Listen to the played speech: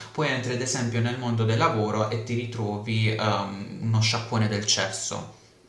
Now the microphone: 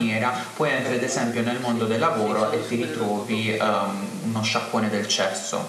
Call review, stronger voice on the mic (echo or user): echo